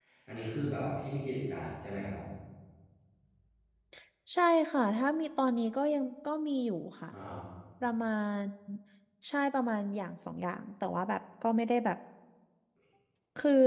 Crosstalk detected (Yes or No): No